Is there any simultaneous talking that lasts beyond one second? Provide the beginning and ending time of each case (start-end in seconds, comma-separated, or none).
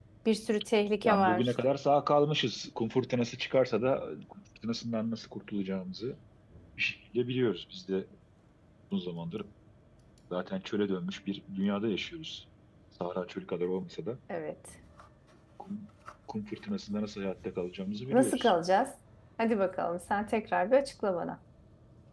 none